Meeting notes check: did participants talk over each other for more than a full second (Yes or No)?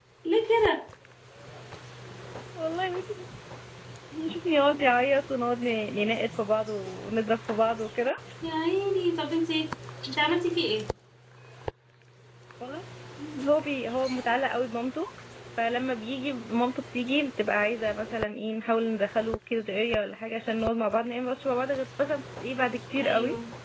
No